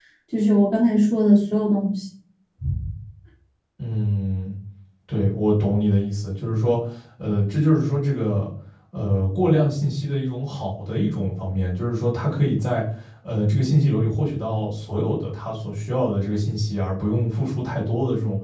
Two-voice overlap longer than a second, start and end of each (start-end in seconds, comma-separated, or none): none